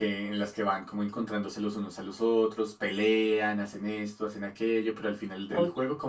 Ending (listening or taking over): listening